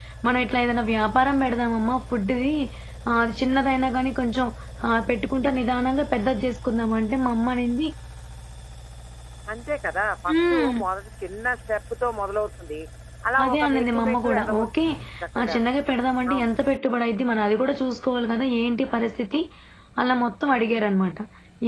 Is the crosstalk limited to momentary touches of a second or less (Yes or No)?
No